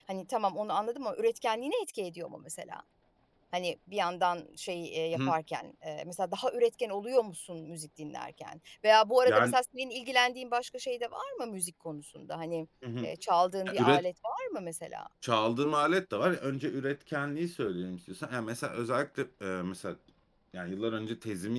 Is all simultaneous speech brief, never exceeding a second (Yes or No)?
Yes